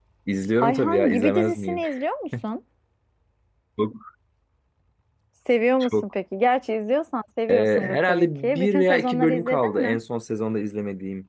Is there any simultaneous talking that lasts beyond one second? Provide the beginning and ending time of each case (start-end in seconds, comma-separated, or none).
0.6-1.8, 7.5-10.0